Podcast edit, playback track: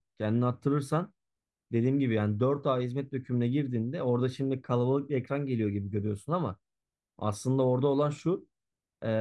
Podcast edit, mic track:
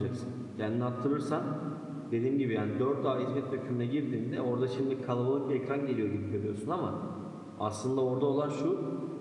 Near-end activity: none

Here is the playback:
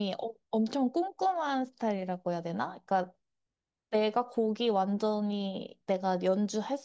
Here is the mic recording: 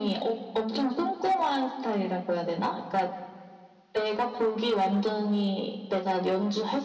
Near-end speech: none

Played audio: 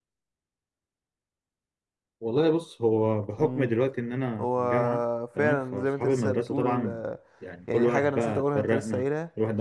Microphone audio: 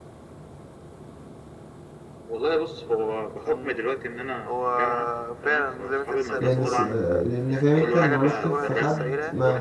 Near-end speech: present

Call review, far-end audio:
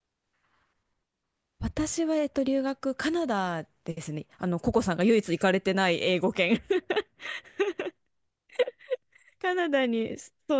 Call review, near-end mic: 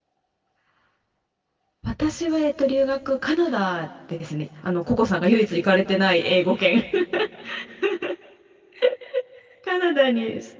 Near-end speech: none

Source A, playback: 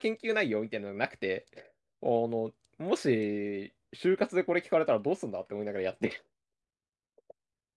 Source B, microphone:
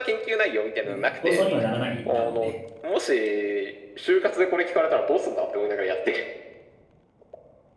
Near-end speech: present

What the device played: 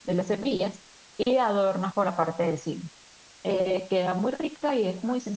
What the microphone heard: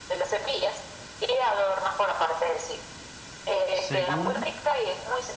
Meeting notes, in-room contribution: present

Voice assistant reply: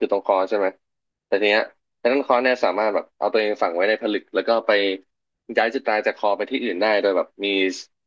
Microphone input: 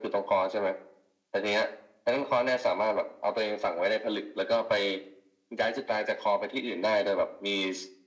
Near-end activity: none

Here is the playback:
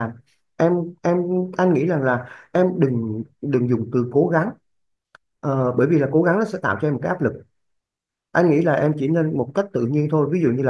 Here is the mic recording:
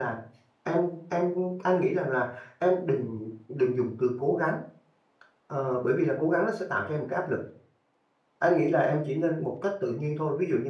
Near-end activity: none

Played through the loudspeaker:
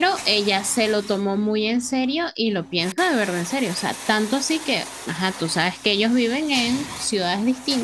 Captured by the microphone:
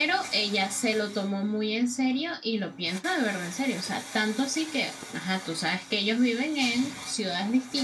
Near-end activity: none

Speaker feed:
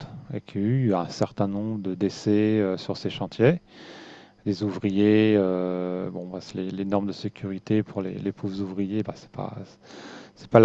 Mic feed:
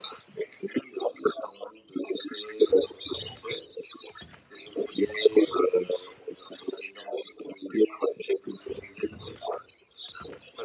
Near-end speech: none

